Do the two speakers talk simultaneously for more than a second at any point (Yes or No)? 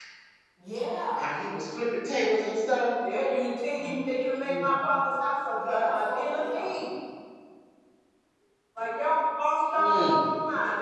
Yes